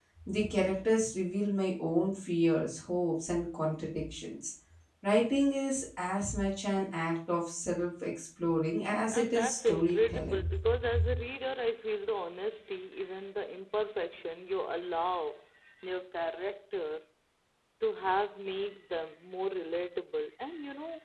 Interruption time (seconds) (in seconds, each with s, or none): 9.1 s